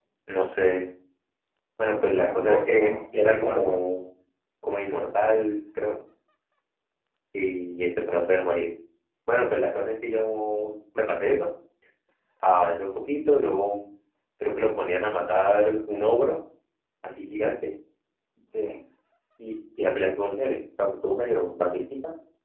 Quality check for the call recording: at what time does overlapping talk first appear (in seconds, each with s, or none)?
2.1 s